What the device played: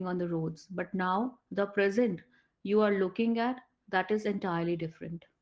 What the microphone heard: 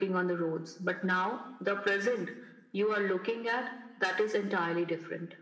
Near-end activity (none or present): none